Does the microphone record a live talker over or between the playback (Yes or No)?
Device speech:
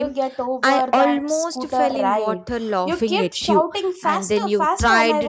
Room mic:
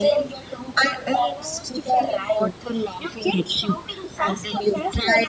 No